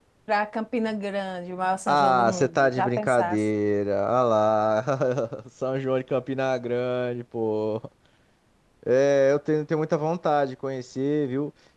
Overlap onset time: 1.9 s

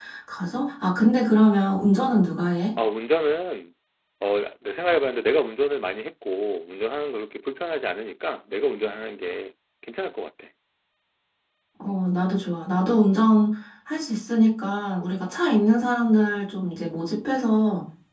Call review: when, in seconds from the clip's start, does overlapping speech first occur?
none

